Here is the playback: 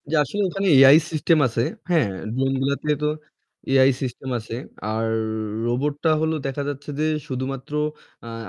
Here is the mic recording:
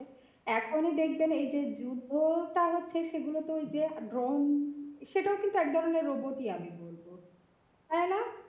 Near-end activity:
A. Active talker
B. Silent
A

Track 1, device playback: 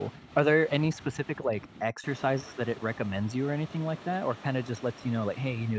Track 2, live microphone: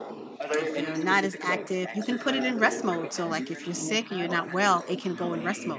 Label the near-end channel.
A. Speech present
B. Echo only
A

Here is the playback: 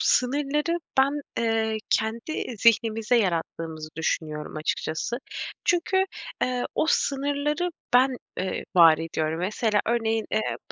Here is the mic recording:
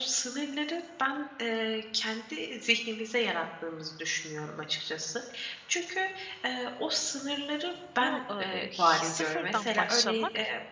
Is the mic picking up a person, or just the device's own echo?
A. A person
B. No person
A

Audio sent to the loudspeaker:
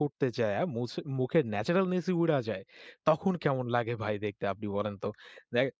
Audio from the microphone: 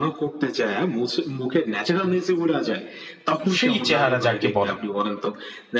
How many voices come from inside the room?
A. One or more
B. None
A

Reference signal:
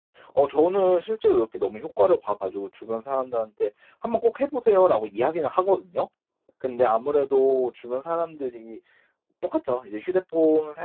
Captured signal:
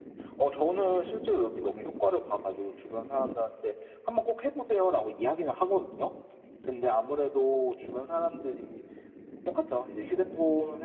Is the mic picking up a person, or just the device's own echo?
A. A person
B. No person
B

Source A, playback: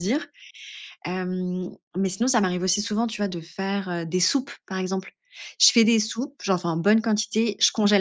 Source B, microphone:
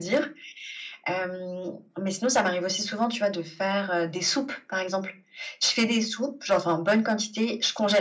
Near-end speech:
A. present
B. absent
B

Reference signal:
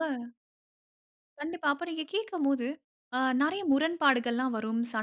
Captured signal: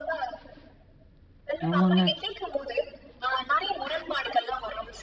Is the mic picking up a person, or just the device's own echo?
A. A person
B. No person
A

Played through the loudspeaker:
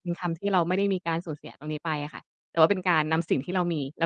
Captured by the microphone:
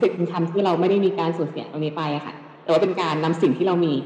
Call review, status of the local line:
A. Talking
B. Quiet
B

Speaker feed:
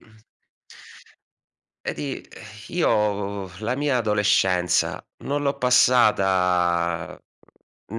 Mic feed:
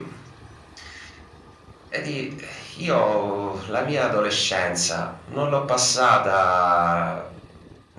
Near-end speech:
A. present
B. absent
B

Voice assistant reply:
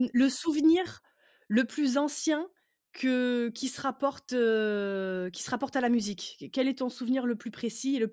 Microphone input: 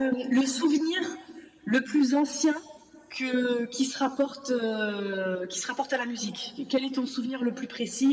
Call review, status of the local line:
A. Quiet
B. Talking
A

